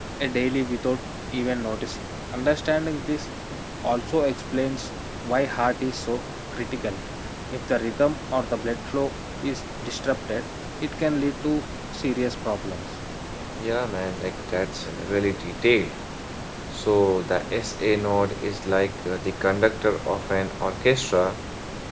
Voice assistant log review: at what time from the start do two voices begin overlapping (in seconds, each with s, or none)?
none